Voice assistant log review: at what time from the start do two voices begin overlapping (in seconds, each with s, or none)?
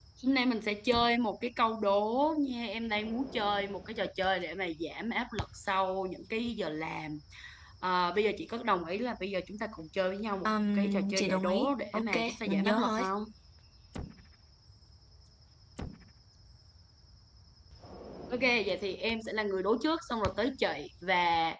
10.4 s